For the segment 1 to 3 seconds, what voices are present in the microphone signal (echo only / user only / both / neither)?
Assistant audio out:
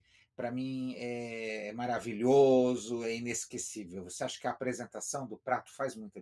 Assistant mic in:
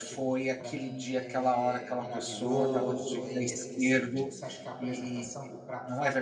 both